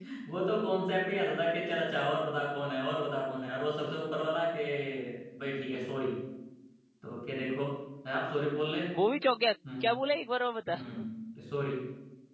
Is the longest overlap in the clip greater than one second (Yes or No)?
No